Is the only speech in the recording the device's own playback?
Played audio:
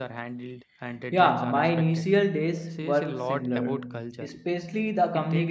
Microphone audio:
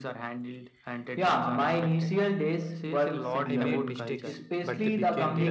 No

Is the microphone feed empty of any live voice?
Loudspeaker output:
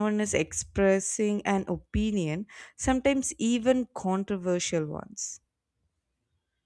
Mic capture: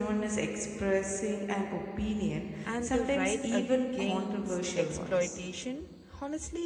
No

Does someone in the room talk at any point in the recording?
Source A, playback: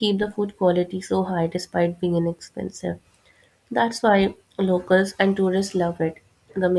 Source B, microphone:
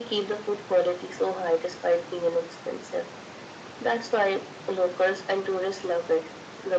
No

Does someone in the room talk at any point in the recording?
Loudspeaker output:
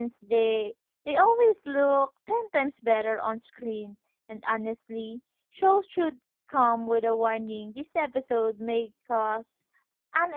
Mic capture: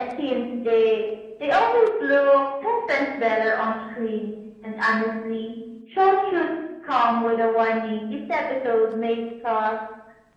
No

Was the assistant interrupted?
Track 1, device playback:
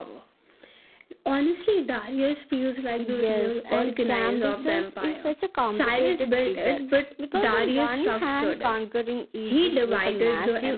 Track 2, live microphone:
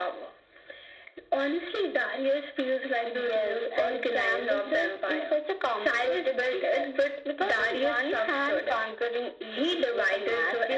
No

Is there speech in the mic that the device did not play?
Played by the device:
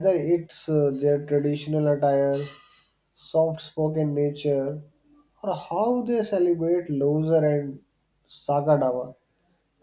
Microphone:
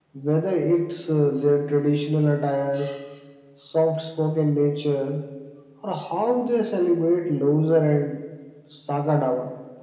No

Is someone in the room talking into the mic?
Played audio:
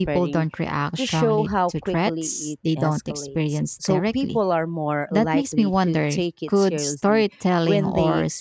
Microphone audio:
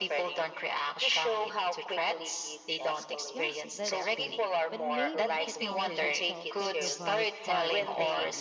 Yes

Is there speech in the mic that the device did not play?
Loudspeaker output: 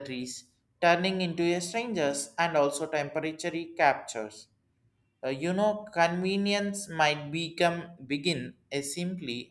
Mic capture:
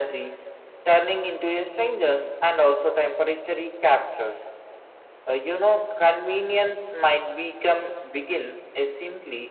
No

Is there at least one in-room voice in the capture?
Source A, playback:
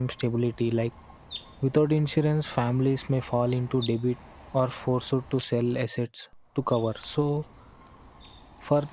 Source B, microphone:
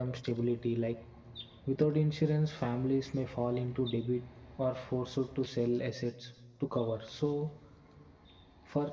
No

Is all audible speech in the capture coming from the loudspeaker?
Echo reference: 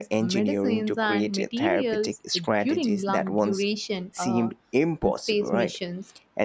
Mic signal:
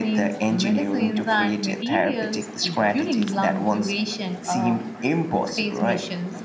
Yes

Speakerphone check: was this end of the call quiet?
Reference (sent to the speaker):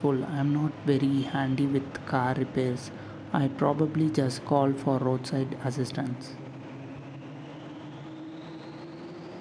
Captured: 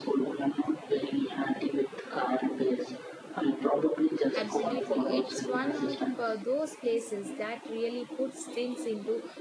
No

